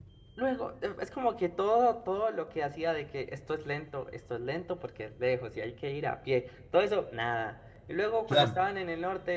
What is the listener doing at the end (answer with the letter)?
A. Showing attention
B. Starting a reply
A